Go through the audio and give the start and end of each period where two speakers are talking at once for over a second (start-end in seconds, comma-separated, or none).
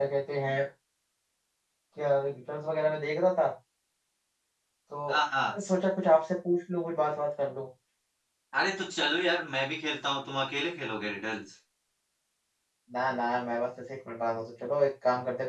none